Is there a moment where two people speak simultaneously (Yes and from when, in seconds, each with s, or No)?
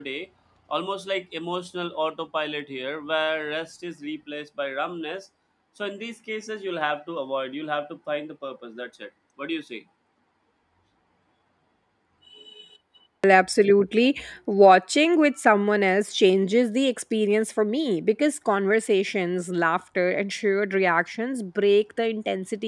No